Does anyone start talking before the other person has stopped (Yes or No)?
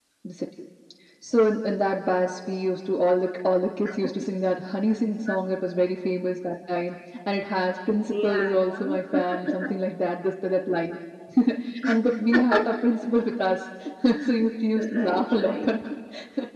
Yes